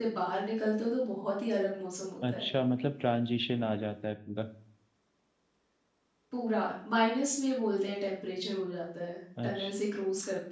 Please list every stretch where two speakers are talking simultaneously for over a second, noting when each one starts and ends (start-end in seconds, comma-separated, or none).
none